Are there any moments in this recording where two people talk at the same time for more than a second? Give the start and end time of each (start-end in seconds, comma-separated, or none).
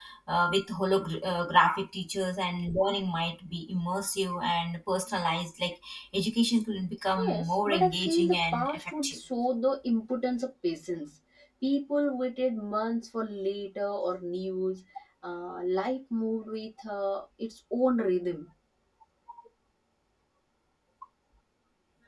7.2-9.2